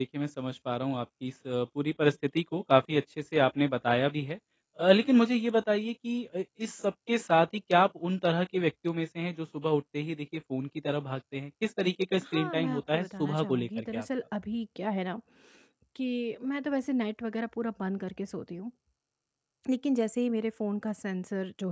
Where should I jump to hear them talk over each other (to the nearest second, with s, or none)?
12 s